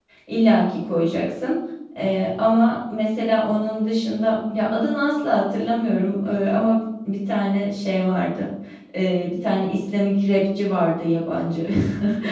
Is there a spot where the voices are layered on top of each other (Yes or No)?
No